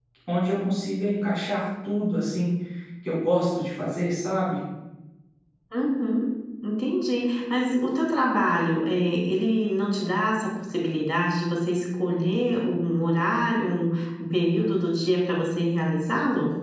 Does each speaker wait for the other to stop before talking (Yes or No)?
Yes